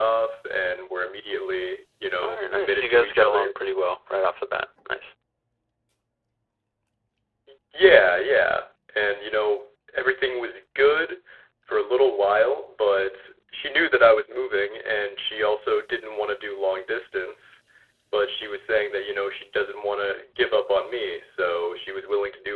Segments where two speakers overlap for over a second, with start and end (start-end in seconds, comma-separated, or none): 2.2-3.5